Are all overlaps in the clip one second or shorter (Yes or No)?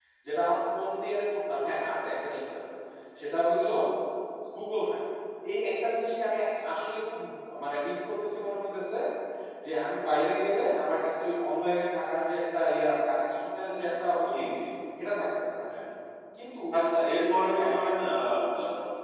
Yes